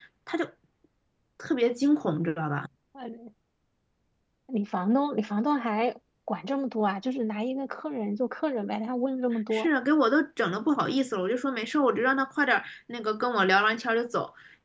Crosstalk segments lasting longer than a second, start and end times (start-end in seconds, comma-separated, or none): none